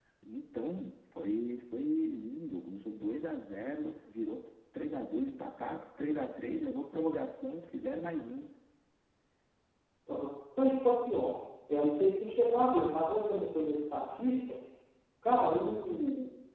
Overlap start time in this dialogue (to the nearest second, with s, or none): none